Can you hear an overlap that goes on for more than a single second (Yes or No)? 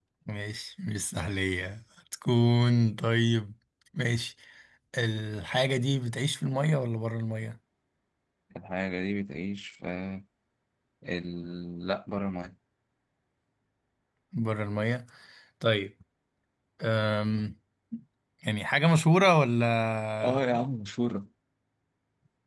No